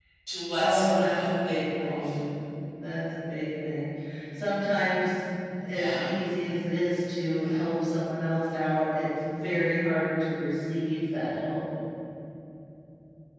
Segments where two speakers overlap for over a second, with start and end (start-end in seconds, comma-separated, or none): 0.6-2.2